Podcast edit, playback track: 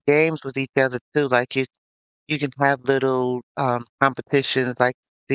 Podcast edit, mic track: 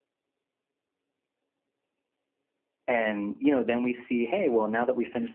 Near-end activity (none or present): present